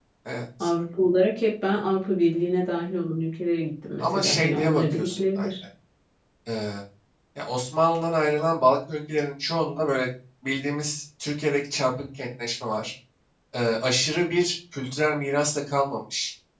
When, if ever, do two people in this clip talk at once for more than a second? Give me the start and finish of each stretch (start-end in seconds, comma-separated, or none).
4.0-5.5